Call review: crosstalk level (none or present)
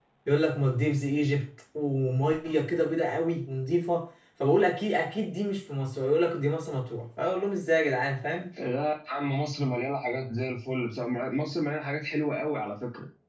none